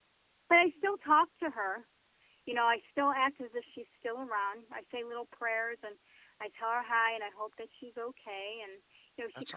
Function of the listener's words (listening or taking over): listening